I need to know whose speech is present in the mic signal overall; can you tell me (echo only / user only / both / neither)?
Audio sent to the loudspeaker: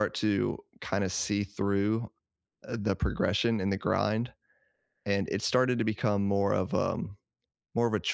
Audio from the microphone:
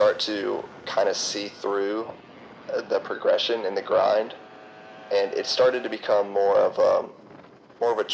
echo only